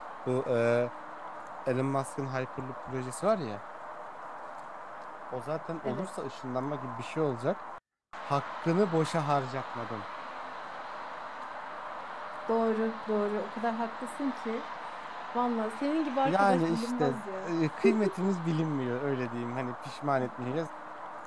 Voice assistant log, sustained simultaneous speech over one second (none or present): present